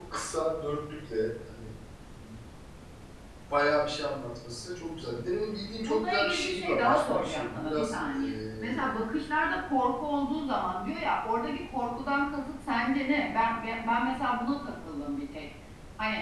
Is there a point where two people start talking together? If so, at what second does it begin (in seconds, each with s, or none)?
5.9 s